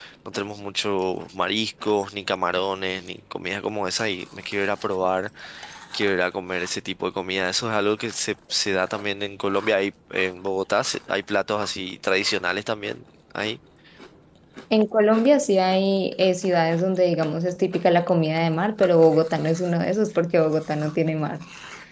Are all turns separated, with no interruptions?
Yes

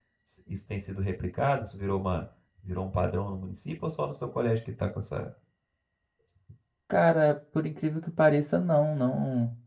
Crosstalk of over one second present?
No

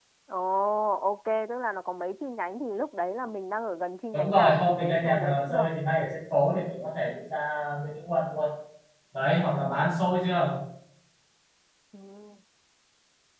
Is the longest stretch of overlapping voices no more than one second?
No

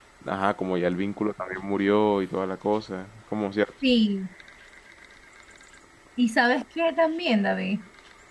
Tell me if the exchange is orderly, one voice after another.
Yes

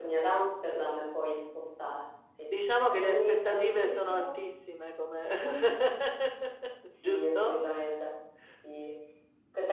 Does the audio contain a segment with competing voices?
Yes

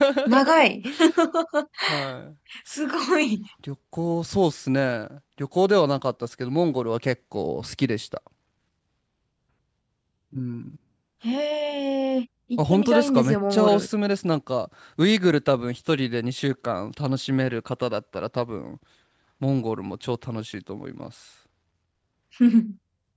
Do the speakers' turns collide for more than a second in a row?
Yes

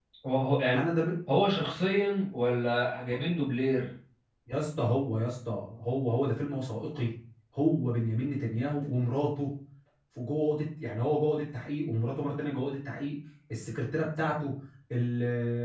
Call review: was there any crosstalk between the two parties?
No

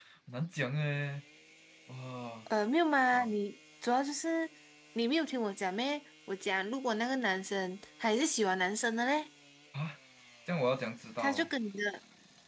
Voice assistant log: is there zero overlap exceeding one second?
Yes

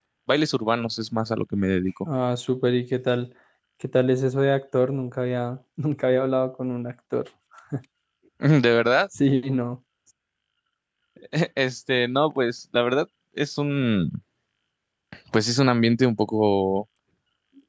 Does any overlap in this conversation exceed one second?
No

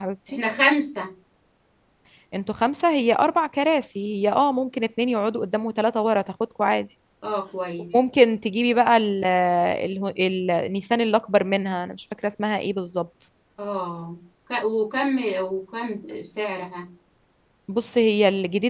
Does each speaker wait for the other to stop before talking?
Yes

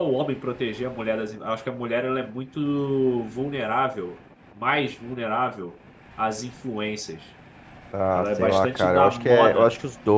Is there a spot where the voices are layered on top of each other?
Yes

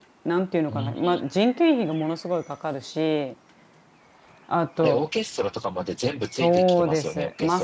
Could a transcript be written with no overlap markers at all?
No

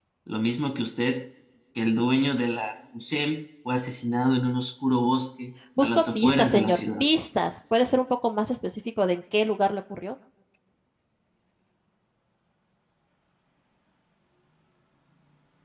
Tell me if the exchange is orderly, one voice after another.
No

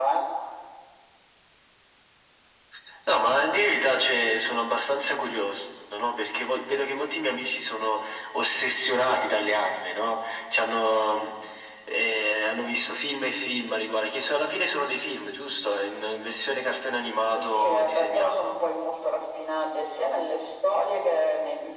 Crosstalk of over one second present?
Yes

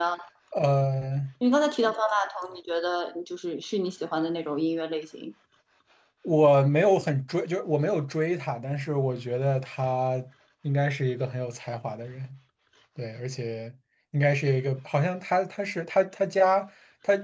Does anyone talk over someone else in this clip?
No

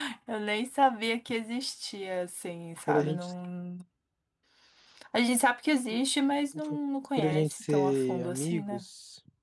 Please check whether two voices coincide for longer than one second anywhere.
Yes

